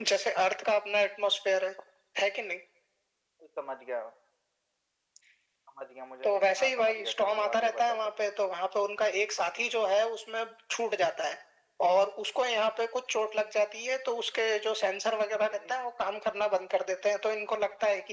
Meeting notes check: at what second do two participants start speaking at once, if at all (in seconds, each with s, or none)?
6.2 s